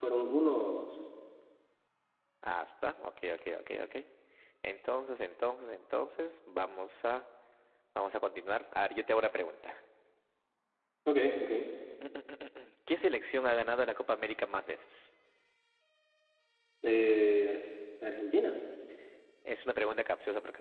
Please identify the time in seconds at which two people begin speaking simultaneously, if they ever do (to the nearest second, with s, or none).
none